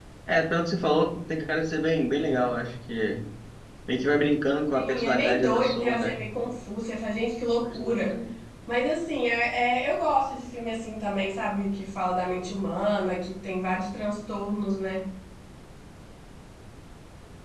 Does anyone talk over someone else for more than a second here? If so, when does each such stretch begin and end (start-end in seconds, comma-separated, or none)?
4.7-6.1